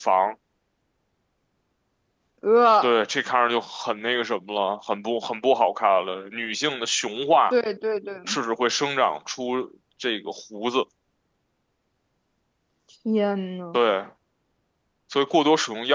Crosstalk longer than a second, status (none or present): none